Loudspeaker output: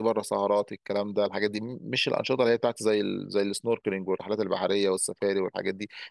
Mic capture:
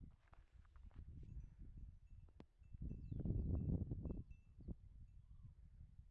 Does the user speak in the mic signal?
No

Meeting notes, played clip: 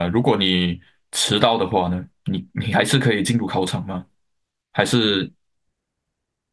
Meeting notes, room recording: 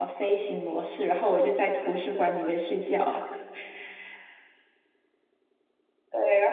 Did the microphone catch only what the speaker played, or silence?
No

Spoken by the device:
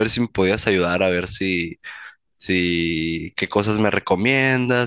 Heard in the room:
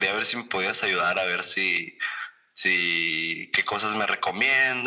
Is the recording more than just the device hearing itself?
No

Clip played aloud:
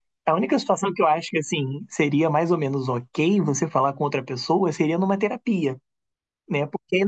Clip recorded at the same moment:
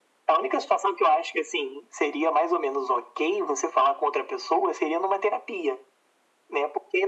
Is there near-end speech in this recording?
No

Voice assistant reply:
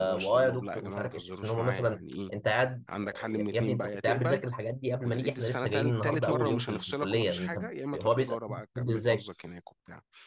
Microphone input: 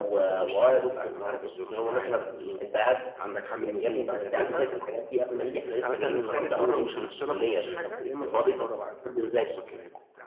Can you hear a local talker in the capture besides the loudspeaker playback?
No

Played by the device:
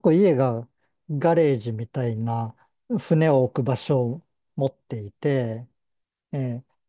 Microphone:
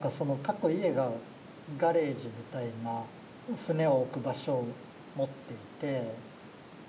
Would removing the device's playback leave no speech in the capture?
Yes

